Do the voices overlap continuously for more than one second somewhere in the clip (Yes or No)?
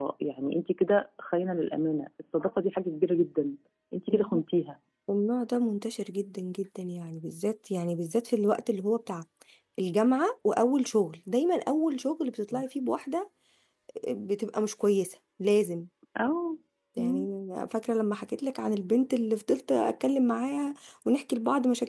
No